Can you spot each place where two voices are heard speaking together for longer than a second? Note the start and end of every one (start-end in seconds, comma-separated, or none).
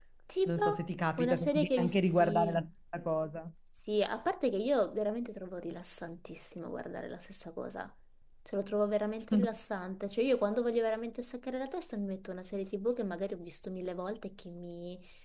1.2-2.6